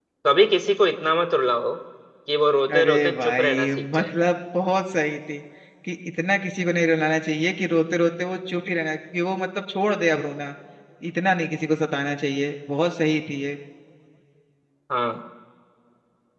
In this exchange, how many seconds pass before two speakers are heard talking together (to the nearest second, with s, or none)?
3 s